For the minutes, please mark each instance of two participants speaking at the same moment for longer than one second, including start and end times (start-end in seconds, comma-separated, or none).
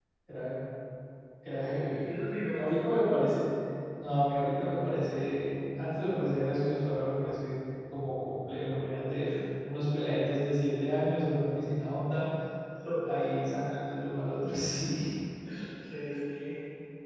none